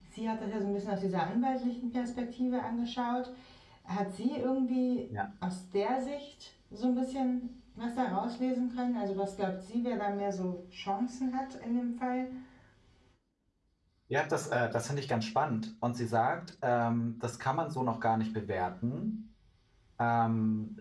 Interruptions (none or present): none